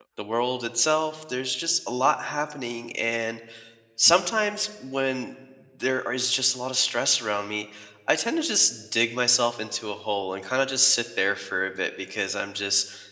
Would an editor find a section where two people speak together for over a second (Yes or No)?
No